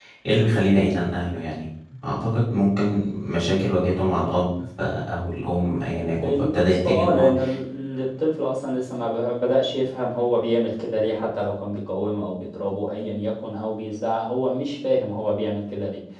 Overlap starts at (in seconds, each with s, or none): 6.0 s